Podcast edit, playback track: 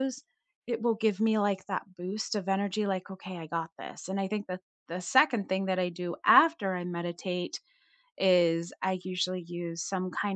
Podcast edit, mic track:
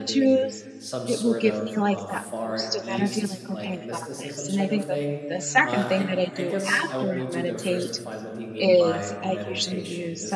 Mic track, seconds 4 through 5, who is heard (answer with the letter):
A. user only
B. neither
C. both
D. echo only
C